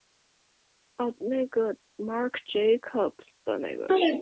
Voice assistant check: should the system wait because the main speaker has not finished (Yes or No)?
No